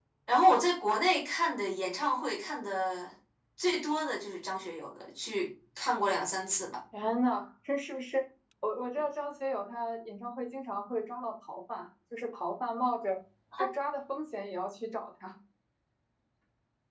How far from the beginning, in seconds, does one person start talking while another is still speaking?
none

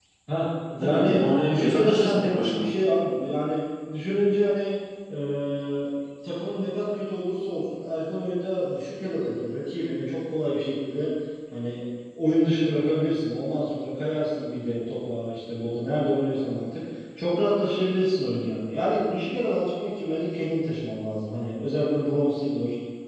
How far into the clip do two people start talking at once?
0.8 s

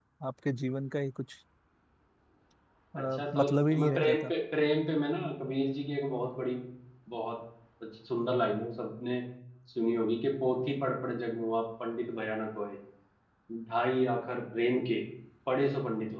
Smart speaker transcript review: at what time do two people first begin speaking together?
3.0 s

